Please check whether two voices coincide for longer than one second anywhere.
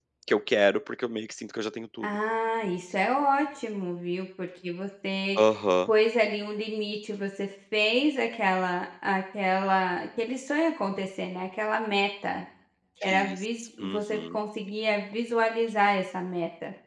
Yes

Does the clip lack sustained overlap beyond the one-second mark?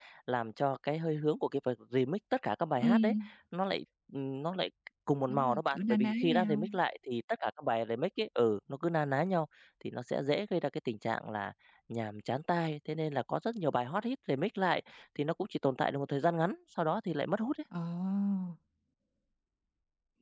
No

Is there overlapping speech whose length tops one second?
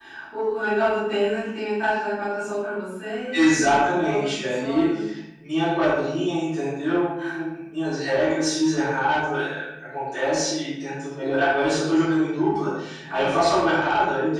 Yes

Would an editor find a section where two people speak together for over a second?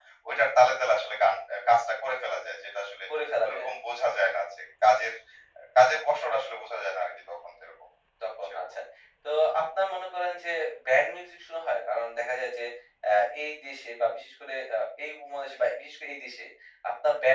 No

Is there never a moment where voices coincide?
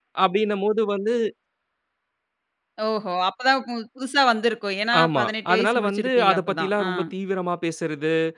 No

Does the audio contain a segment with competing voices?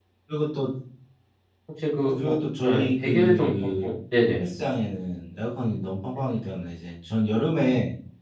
Yes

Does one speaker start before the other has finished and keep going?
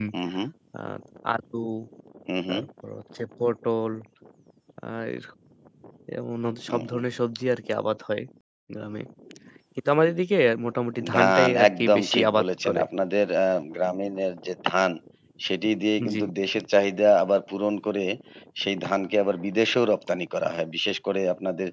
Yes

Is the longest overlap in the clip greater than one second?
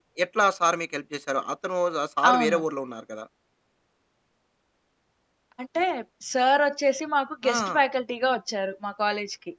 No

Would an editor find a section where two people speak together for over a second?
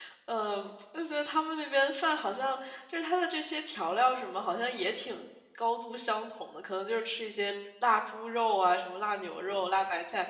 No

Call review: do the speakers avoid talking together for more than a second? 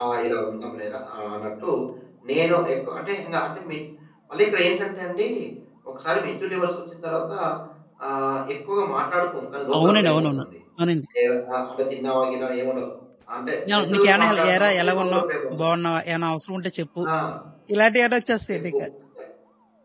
No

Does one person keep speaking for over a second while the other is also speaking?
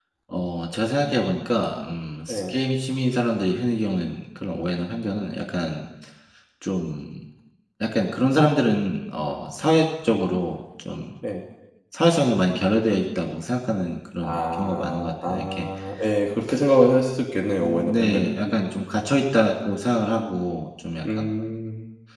Yes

